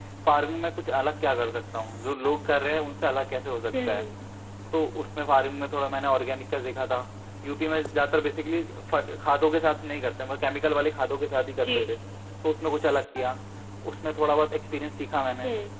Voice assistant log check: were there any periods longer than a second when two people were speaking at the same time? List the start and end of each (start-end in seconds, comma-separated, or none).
none